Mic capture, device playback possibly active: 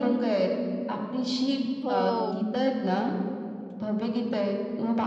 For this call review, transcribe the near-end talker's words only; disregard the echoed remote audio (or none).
हो.